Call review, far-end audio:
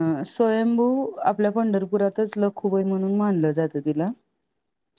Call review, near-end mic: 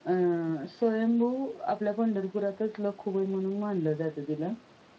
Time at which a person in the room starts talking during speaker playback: none

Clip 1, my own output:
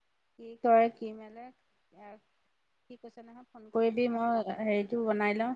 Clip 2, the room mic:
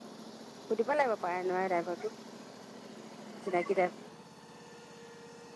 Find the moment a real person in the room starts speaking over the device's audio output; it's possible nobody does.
0.7 s

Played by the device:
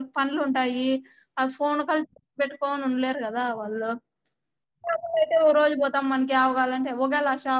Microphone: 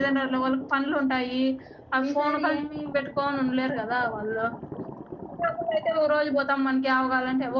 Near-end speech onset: 2.0 s

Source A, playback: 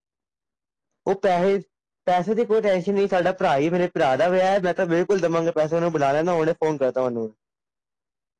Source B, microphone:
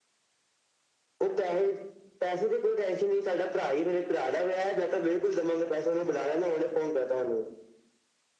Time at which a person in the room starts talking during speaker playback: none

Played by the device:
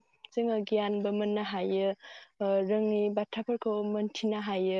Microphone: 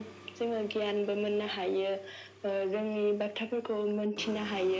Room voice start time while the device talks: none

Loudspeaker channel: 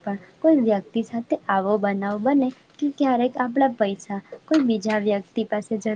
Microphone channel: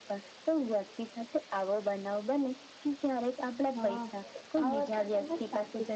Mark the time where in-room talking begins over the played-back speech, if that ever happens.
3.8 s

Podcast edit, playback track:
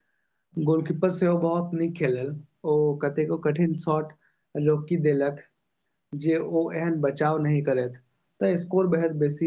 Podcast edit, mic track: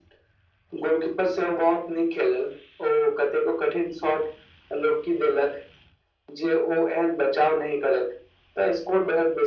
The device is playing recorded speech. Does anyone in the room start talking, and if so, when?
none

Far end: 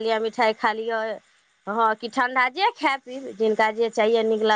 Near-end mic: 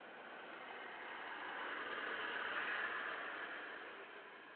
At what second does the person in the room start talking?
none

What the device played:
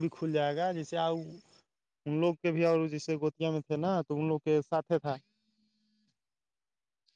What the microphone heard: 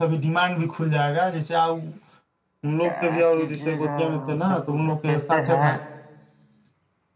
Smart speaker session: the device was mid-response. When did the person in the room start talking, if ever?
2.8 s

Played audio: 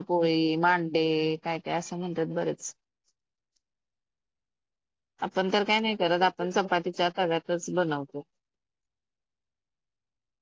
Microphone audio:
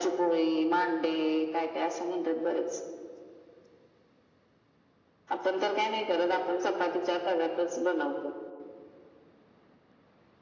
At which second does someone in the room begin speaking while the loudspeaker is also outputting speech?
none

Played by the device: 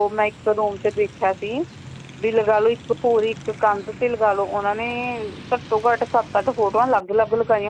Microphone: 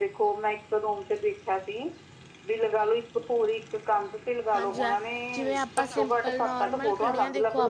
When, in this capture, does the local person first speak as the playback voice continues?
4.5 s

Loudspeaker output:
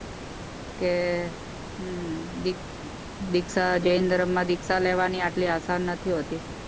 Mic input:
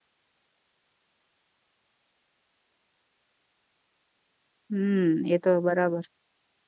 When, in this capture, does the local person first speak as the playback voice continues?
4.7 s

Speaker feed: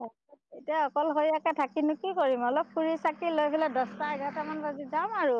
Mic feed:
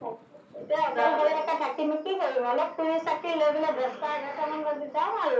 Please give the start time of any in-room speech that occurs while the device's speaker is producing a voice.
0.9 s

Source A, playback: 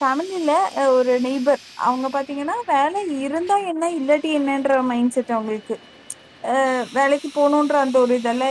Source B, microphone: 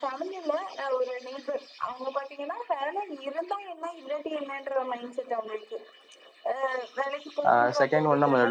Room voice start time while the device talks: 7.5 s

